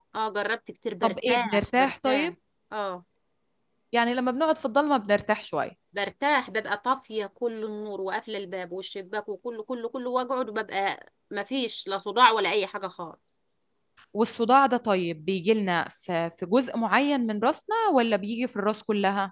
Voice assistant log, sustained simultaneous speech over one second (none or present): present